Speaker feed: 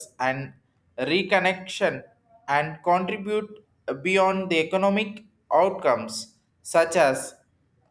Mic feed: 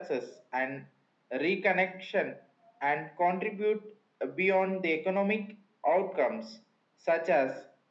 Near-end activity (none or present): none